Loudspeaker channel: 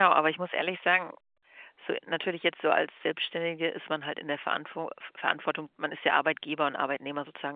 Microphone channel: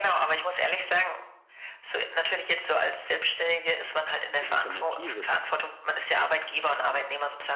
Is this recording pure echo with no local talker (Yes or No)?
No